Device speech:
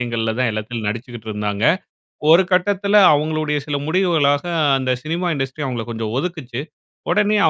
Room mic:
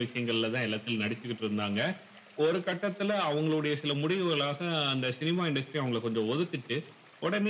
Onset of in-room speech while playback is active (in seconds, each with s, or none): none